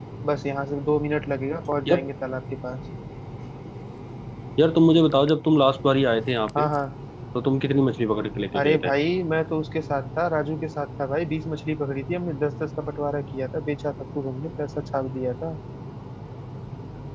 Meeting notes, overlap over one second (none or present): none